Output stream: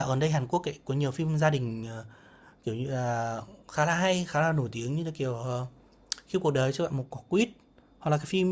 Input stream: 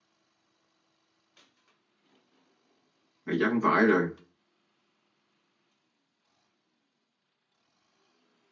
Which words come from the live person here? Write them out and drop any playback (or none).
mày chắc không phải rồi